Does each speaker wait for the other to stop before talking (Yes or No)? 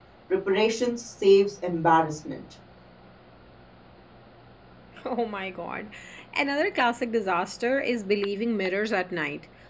Yes